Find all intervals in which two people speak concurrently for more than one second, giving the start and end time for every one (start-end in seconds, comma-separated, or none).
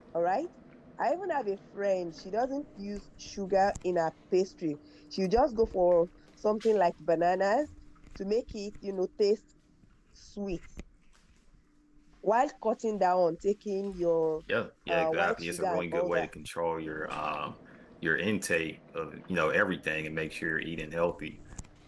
14.9-16.3